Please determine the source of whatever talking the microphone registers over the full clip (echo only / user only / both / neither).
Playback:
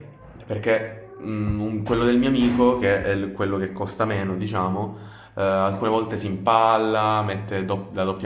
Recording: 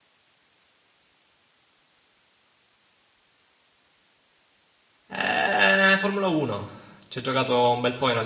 user only